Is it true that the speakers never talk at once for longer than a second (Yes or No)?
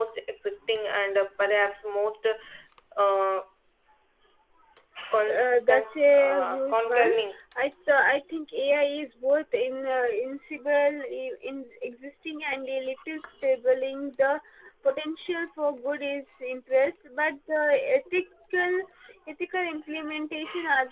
No